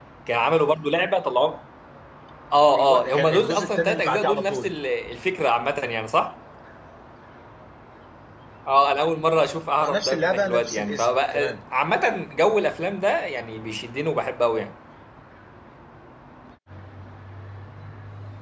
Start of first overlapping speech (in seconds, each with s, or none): 2.8 s